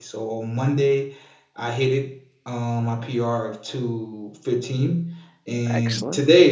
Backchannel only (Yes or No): Yes